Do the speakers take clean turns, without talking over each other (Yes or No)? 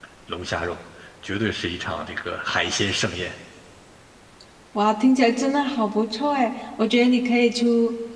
Yes